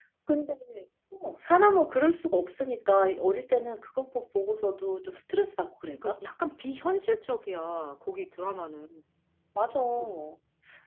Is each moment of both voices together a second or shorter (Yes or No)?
Yes